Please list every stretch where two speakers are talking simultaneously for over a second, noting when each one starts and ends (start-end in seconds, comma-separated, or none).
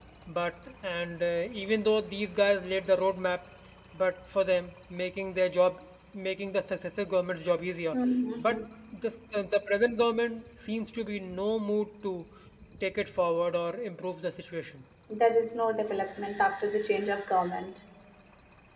none